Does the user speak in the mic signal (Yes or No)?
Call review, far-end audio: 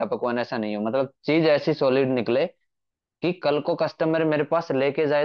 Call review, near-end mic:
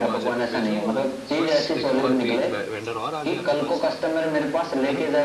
Yes